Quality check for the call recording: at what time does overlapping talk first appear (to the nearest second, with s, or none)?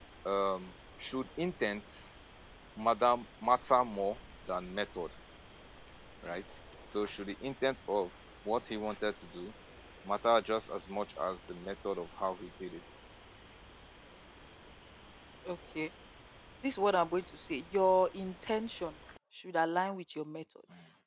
none